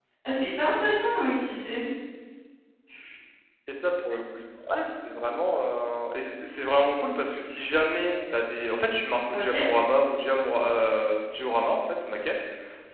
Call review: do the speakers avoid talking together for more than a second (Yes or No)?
Yes